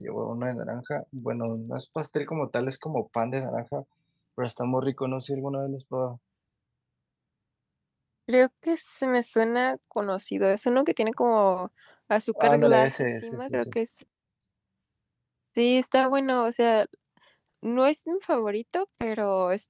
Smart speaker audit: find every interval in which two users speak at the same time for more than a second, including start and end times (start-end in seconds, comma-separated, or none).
12.4-13.7